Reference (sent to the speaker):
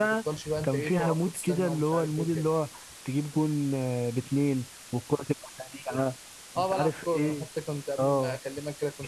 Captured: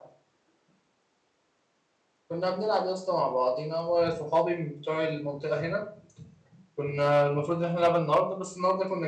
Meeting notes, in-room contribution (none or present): present